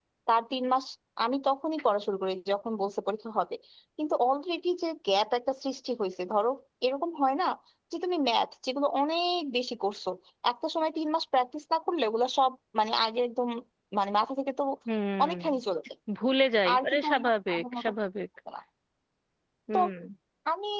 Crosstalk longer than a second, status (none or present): present